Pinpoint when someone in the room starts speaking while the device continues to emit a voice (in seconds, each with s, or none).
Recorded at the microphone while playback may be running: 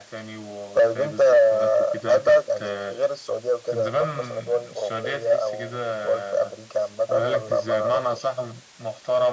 none